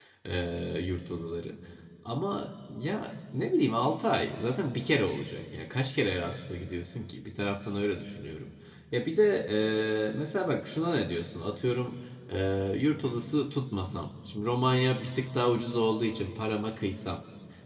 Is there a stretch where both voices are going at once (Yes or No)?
No